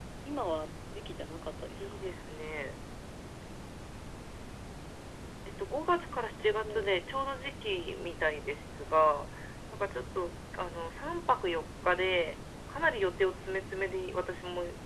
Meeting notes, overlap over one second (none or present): none